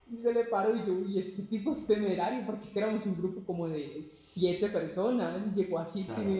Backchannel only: Yes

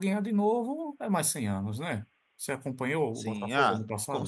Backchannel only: No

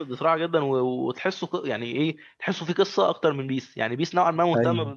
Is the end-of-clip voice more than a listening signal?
No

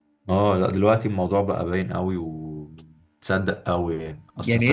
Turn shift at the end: No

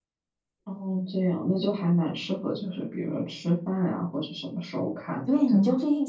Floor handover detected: Yes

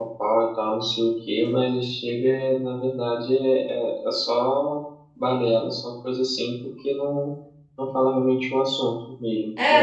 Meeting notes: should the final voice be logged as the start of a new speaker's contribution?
Yes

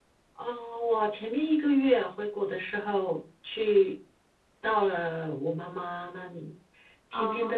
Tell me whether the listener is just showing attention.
Yes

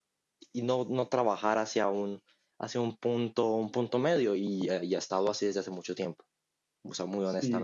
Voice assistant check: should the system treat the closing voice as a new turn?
Yes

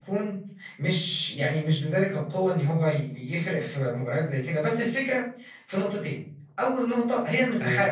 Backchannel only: Yes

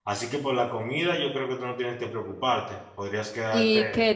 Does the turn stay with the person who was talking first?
No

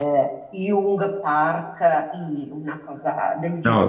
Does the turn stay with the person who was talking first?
No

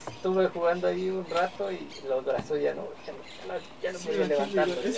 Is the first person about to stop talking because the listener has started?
Yes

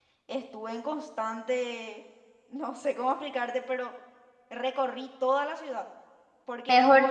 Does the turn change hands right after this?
Yes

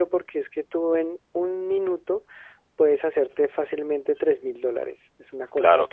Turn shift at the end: No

